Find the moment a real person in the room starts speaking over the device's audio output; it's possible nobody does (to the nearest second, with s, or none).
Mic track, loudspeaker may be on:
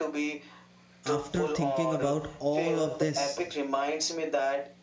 1 s